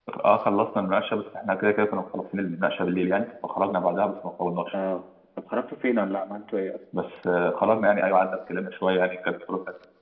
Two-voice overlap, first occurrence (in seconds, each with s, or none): none